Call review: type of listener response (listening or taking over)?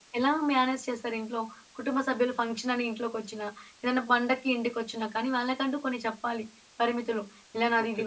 listening